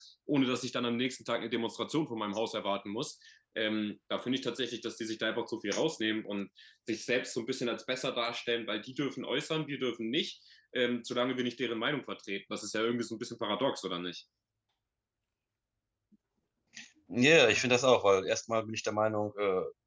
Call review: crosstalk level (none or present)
none